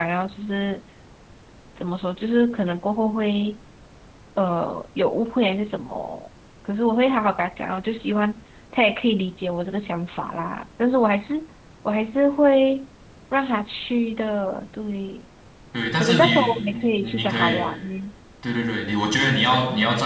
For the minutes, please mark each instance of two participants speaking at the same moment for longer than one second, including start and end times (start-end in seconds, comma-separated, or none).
15.9-17.7